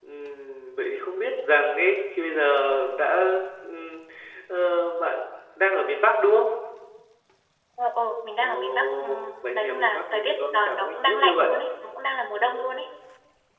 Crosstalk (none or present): present